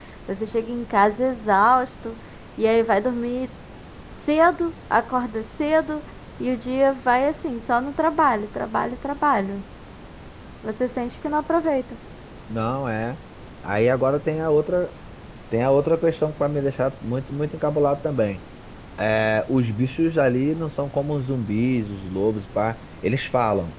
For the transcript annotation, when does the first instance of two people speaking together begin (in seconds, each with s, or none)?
none